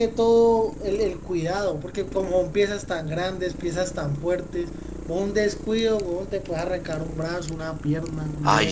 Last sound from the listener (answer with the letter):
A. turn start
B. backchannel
A